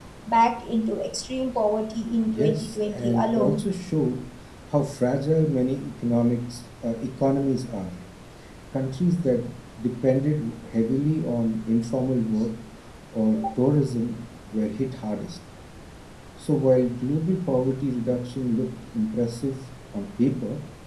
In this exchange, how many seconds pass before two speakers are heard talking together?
2.3 s

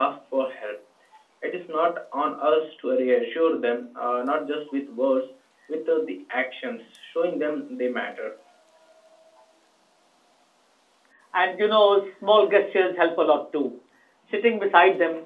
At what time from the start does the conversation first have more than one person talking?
none

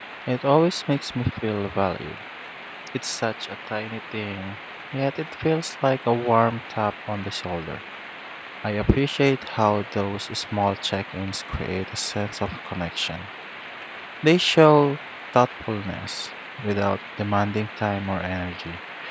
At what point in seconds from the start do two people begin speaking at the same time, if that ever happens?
none

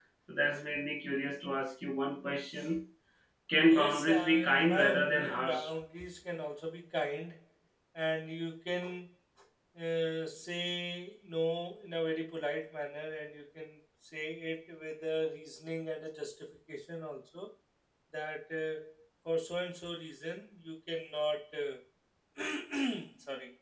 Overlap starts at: 3.6 s

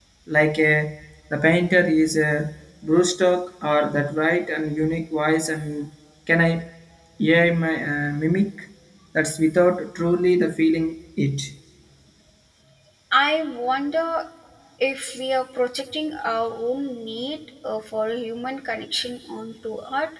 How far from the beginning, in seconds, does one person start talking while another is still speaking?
none

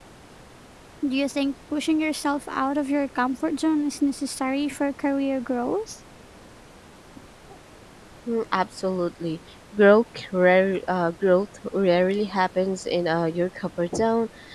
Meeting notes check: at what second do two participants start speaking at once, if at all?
none

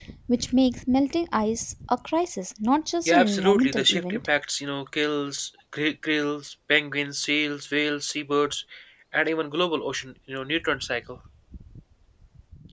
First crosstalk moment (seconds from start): 3.1 s

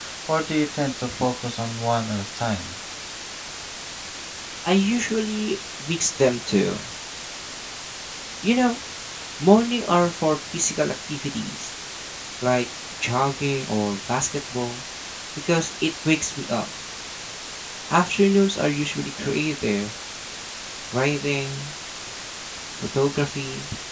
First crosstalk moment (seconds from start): none

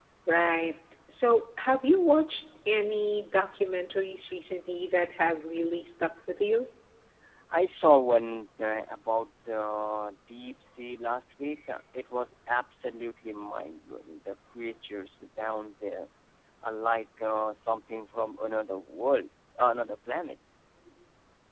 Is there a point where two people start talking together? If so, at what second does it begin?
none

